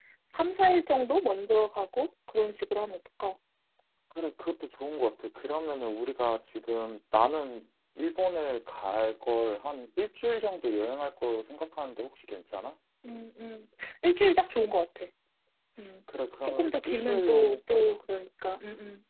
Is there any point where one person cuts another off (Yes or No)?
Yes